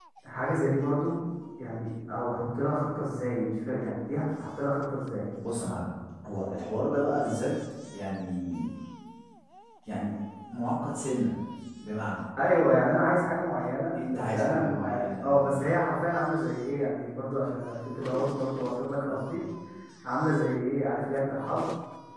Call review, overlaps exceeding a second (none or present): present